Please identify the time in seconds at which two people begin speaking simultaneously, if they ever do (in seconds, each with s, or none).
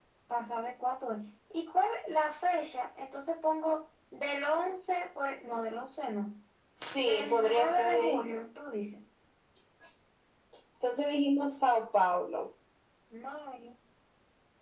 7.0 s